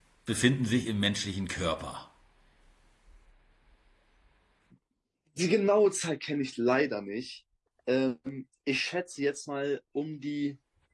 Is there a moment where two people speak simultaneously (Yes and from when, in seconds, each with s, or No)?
No